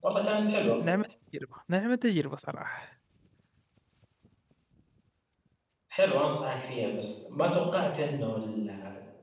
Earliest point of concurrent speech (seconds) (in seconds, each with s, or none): none